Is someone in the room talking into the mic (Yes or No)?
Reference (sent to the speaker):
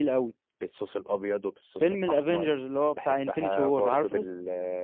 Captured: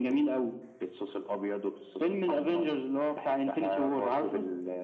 No